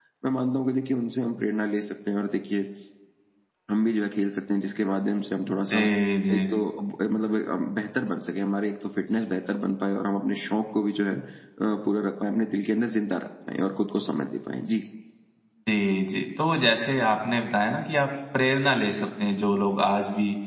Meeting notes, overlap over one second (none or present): none